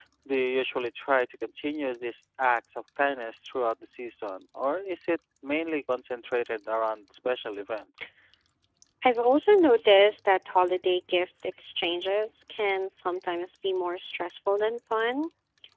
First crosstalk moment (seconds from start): none

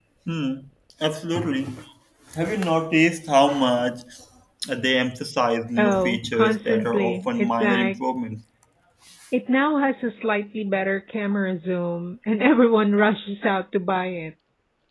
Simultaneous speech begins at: 5.8 s

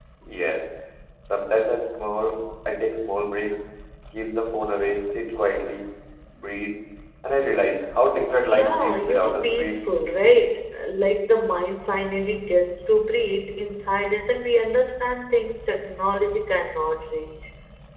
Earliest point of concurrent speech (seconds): 8.4 s

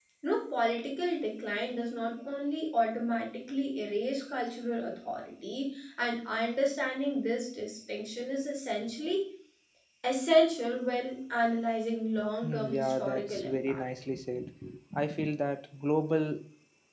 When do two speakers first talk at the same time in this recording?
12.4 s

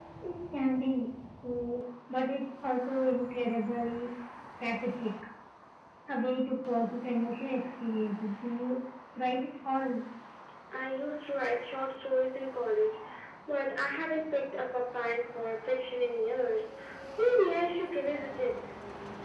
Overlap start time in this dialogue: none

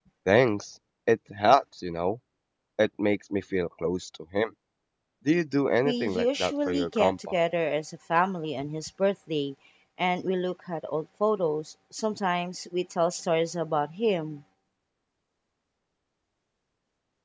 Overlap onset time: 5.8 s

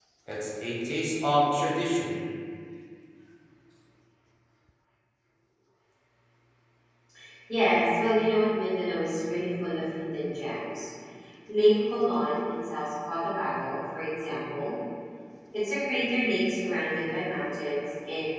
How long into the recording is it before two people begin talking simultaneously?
none

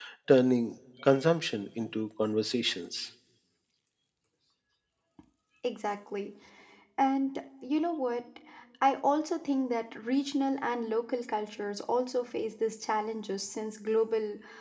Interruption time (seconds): none

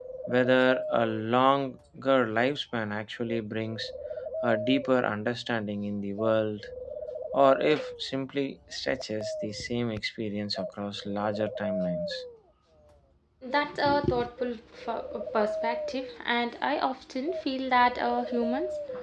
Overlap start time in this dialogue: none

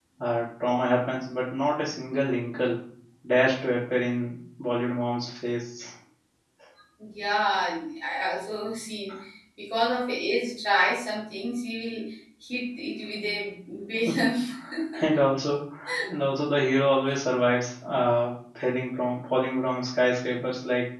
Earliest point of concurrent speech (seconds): none

